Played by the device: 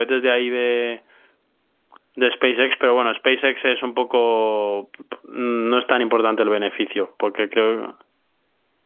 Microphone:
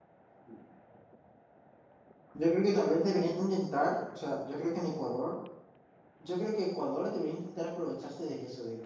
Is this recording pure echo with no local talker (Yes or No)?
No